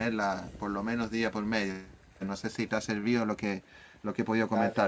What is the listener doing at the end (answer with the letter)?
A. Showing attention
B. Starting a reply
B